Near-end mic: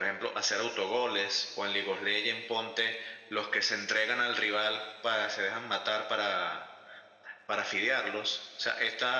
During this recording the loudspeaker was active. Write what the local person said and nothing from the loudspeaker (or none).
none